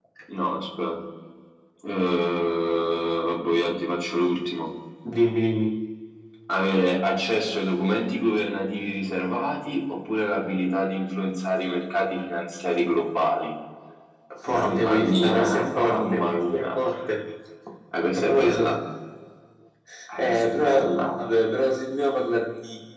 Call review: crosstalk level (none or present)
present